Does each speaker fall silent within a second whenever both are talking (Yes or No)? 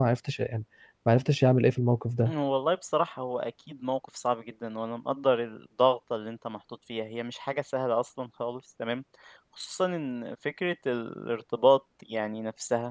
Yes